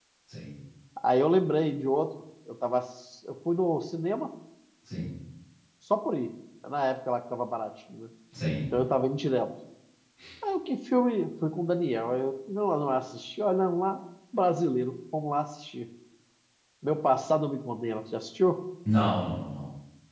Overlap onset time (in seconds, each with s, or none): none